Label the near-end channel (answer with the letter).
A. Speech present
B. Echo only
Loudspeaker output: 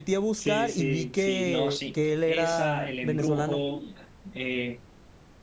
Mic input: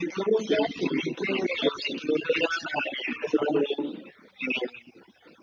B